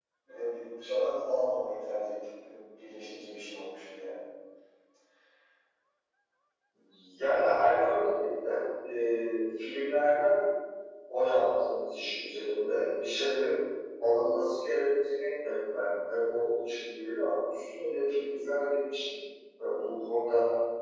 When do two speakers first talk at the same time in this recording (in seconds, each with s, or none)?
none